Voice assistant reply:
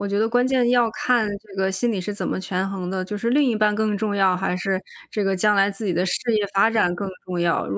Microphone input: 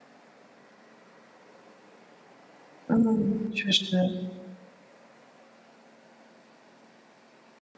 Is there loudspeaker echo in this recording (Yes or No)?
No